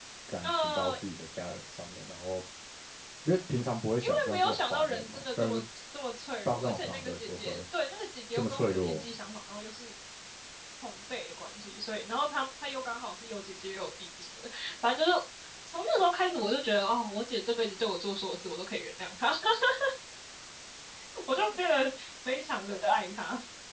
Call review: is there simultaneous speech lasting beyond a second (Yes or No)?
Yes